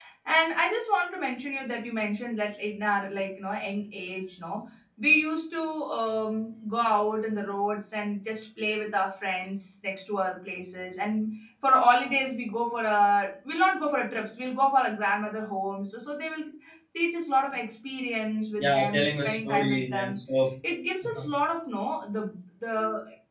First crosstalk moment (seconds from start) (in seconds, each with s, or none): 18.6 s